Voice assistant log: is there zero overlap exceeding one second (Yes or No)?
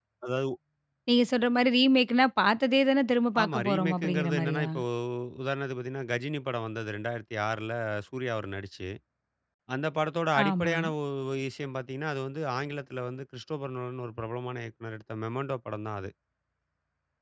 No